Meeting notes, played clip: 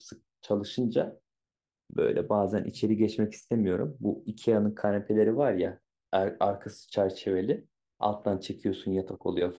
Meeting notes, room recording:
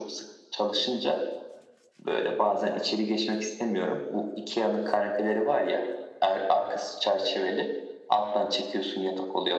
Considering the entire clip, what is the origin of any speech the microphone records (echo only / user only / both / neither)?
echo only